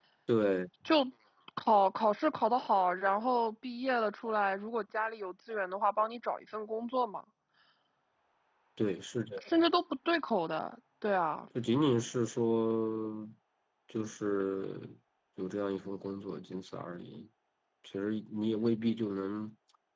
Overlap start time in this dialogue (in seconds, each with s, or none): none